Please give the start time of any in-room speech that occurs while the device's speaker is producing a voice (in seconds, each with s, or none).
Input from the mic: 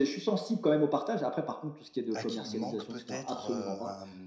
2.1 s